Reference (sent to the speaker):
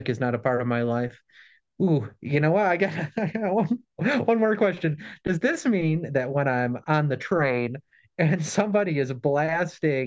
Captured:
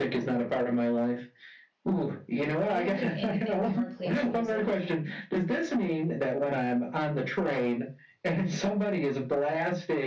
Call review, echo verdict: present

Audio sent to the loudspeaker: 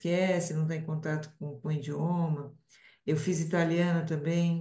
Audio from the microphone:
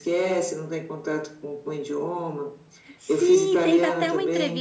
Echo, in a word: present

